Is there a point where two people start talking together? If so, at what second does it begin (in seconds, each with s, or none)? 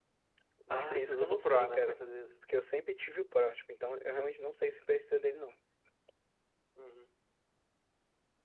0.7 s